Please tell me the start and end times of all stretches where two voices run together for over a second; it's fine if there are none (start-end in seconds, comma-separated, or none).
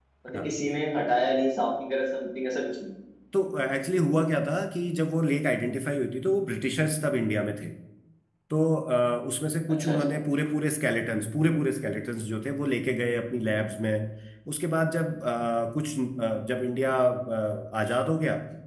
none